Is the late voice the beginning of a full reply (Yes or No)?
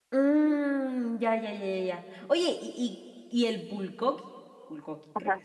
Yes